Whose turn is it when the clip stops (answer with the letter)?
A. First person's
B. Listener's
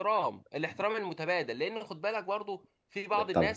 A